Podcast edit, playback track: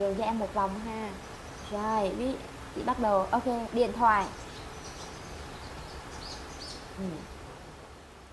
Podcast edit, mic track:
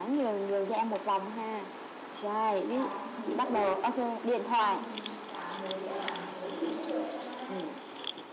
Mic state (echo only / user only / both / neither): both